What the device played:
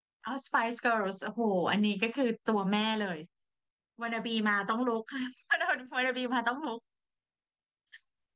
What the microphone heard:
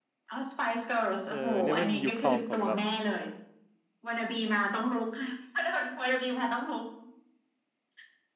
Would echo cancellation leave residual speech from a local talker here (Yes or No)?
Yes